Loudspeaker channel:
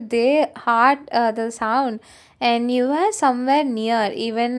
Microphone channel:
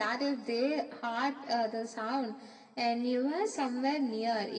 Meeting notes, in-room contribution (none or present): none